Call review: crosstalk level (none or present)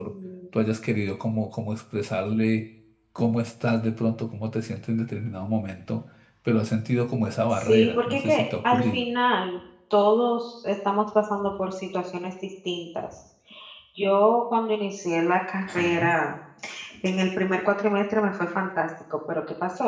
present